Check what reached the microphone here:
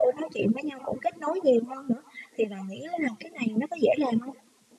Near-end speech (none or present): none